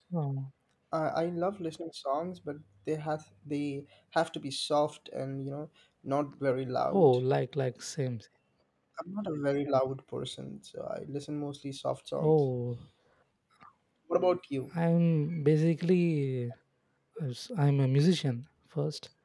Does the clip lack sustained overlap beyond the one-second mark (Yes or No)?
Yes